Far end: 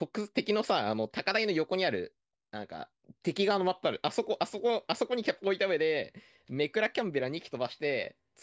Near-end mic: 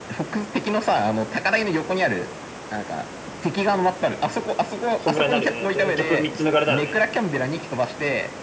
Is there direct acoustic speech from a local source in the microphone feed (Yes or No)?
Yes